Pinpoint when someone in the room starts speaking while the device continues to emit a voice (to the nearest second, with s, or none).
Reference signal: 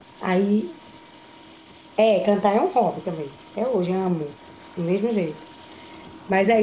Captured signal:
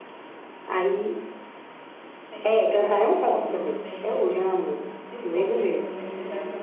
2 s